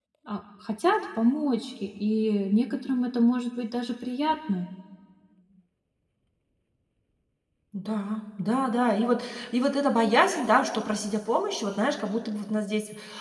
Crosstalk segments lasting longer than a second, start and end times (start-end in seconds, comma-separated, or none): none